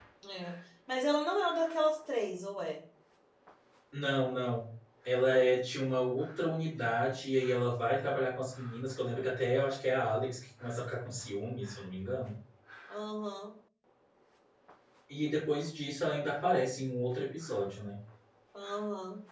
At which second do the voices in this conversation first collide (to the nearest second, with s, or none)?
none